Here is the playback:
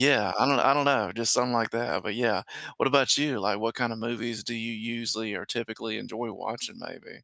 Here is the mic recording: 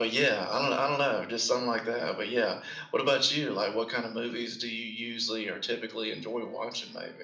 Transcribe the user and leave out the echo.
none

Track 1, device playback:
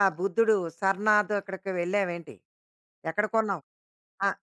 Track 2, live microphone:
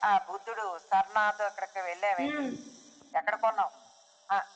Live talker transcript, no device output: హ్మ్.

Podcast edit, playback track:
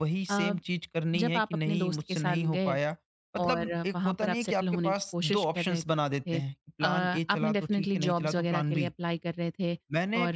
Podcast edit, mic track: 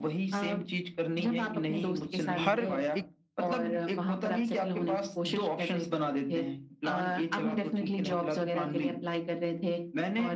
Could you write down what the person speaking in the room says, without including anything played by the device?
हर एक

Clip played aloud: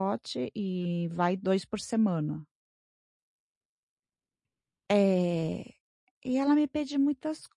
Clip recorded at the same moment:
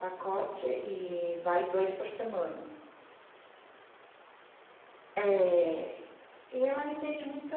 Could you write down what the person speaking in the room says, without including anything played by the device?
none

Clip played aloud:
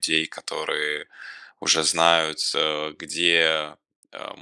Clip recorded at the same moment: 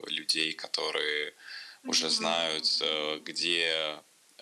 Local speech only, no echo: Поняла.

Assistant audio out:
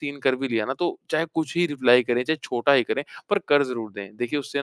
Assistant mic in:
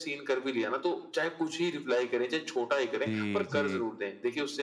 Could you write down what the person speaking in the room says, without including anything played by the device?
जी, जी।

